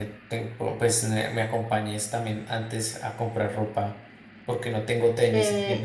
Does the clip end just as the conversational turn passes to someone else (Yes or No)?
Yes